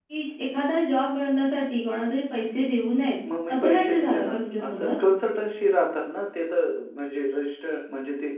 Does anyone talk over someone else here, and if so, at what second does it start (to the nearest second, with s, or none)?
3 s